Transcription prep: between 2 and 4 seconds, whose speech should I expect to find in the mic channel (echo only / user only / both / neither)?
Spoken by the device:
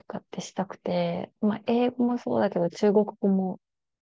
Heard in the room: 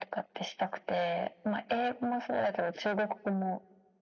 echo only